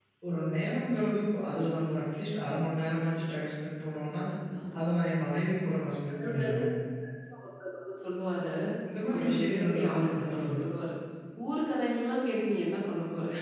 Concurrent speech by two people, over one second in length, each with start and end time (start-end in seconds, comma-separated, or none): 9.1-10.6